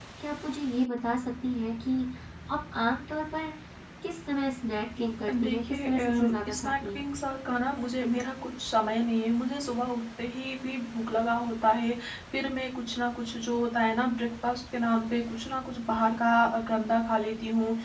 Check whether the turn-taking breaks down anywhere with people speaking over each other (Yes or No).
Yes